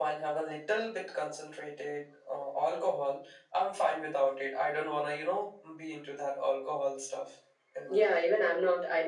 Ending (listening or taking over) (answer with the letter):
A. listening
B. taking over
B